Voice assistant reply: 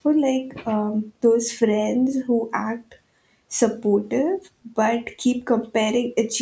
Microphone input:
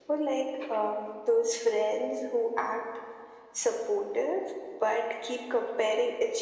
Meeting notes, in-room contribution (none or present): none